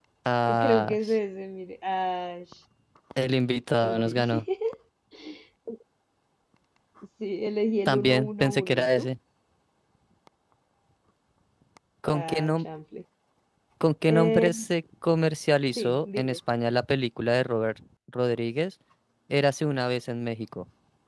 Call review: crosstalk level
present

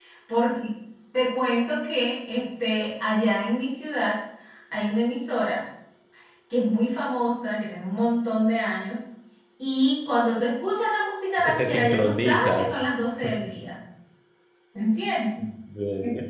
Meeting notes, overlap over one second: present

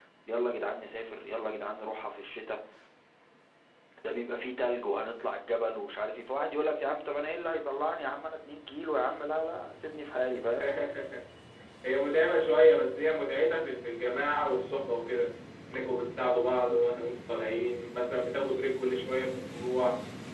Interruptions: none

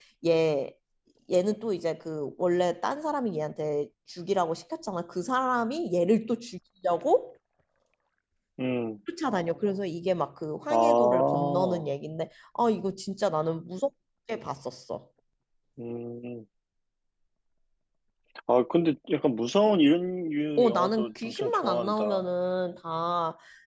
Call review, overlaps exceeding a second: present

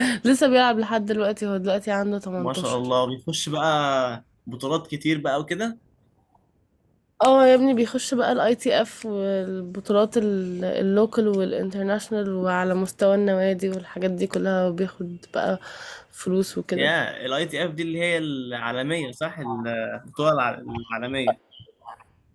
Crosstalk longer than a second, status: none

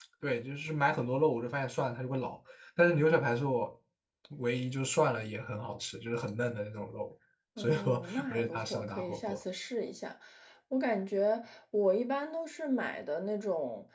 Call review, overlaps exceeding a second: present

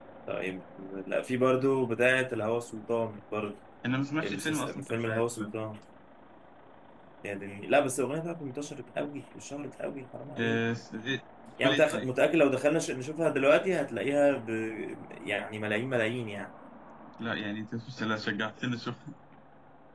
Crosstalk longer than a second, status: present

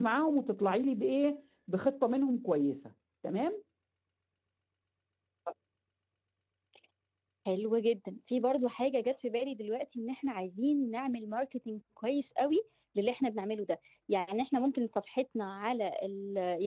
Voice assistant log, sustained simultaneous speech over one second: none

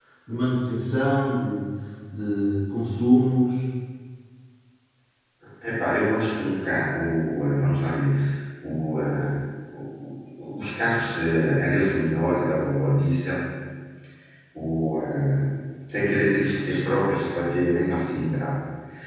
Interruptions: none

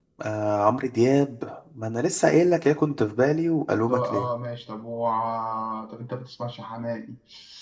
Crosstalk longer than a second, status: none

